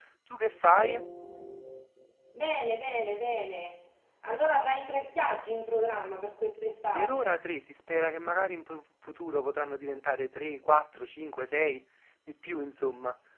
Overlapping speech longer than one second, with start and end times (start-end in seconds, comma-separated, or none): none